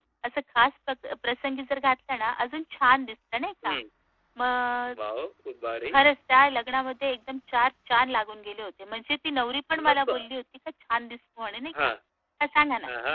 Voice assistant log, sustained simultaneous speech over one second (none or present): none